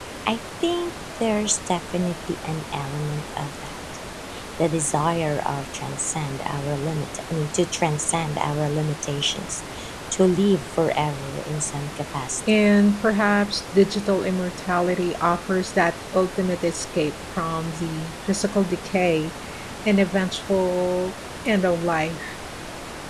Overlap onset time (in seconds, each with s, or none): none